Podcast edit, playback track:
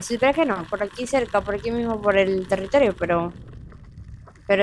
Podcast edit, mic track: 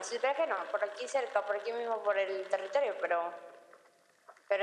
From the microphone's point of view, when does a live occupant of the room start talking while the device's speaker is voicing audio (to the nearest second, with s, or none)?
none